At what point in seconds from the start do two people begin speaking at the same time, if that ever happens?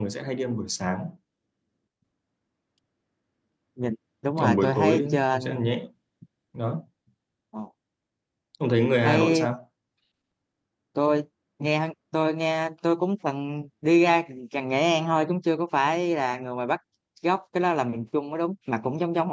4.4 s

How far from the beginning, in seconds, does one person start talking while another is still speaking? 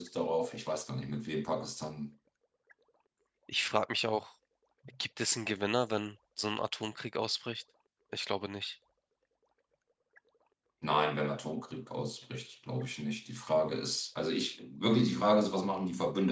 none

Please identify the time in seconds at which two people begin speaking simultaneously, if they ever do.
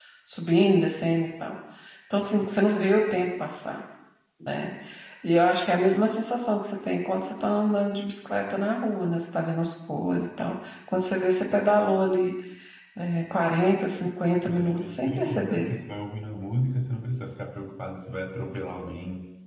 14.4 s

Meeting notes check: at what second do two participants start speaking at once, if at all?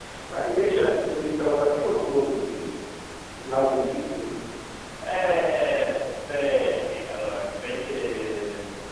none

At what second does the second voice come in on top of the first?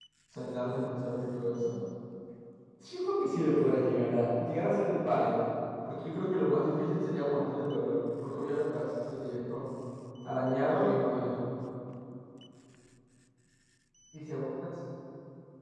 none

